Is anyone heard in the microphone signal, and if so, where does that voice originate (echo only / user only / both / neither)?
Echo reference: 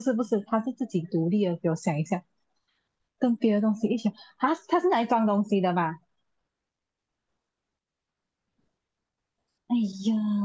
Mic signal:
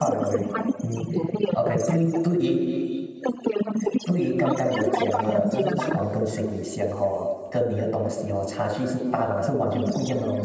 both